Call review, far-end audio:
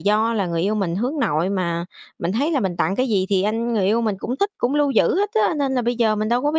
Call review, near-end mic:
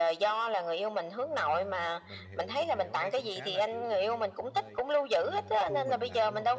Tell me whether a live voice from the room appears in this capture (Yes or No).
Yes